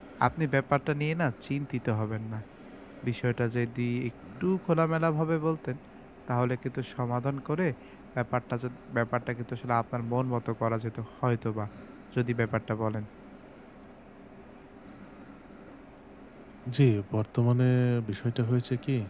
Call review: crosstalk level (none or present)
none